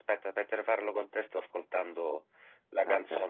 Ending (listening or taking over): listening